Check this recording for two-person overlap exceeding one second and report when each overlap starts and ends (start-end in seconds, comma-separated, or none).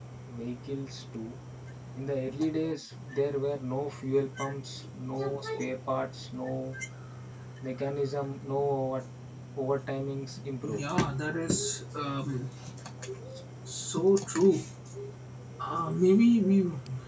none